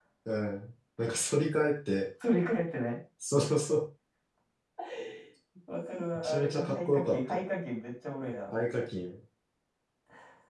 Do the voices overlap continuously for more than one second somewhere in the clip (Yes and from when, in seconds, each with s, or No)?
Yes, from 6.2 s